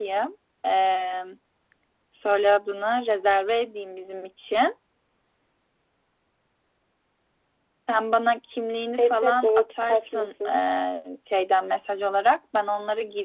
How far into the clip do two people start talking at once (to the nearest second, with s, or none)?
9 s